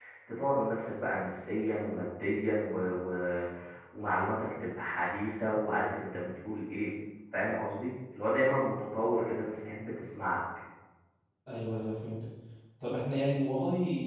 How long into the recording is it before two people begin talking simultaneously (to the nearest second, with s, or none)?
none